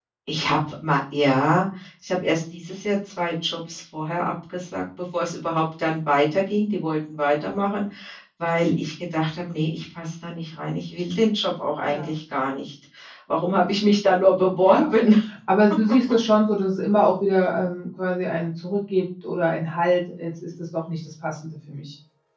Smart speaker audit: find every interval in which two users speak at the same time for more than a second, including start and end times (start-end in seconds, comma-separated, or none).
none